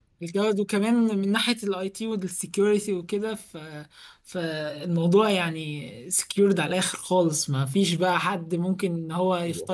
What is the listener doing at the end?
taking over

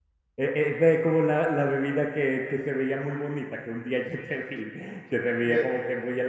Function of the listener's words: listening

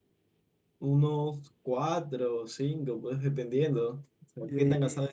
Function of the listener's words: listening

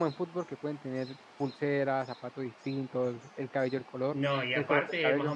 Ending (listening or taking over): taking over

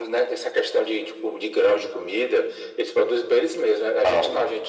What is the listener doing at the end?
listening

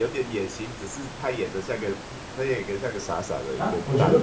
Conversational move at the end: taking over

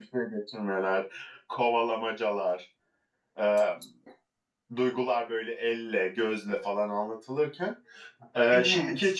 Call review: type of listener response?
listening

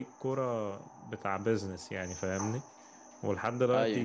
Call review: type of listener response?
listening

